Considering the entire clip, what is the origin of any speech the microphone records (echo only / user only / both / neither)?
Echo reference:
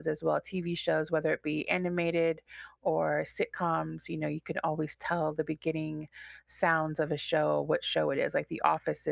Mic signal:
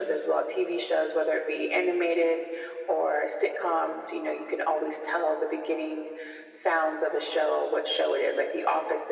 echo only